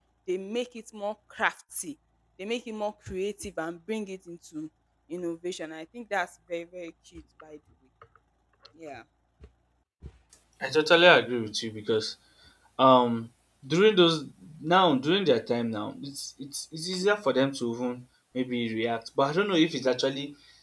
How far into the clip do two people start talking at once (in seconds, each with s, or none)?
none